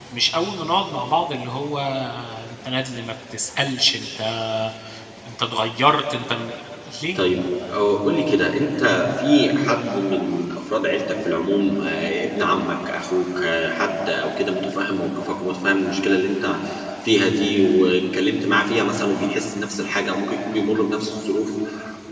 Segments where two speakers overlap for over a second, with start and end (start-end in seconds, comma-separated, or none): none